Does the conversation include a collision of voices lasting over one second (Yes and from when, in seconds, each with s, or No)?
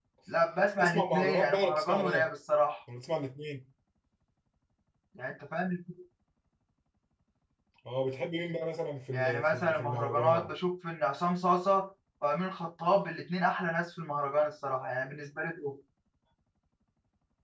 Yes, from 0.8 s